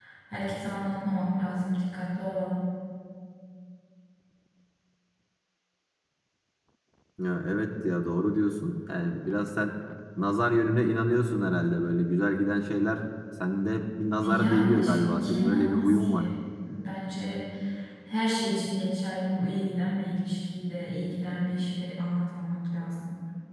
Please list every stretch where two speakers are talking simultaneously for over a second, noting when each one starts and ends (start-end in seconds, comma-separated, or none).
14.2-16.3